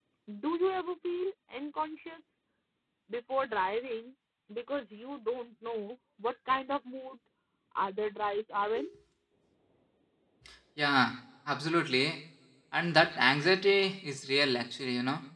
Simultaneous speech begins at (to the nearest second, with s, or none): none